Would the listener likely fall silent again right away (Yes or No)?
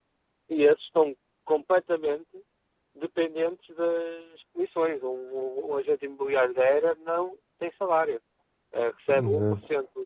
Yes